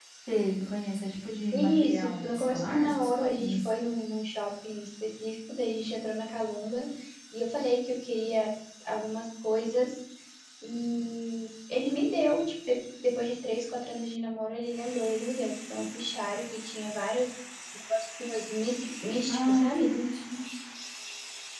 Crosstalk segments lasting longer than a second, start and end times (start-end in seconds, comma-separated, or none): 1.5-3.7